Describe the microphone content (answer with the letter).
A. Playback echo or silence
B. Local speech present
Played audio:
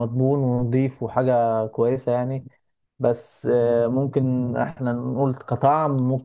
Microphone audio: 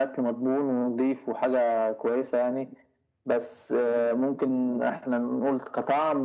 A